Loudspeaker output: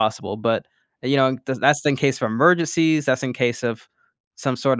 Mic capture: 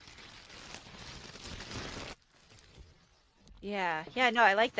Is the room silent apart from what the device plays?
No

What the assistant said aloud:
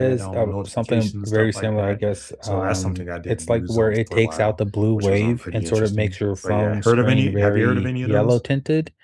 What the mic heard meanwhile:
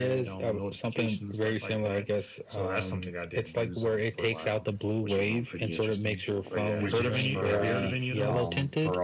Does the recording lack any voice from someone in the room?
No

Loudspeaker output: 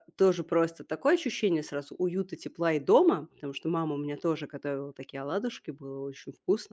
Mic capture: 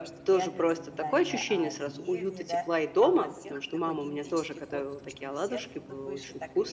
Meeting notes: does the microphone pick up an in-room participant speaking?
Yes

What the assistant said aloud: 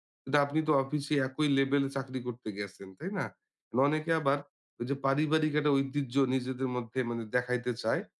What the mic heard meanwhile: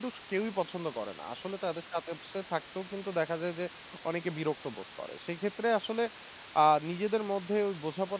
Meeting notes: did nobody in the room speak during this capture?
No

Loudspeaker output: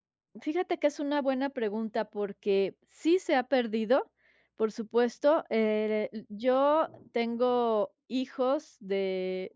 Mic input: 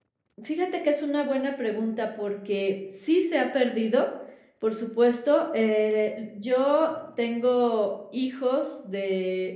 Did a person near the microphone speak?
No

